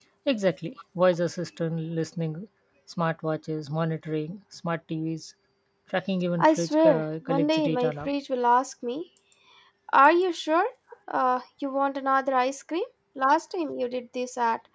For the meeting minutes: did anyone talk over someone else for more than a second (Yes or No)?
Yes